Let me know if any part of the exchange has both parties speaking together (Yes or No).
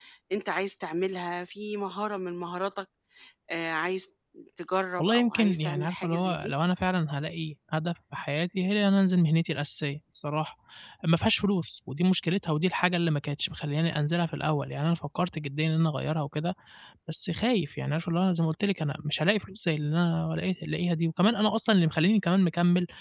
Yes